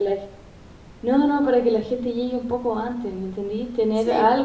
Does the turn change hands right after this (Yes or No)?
No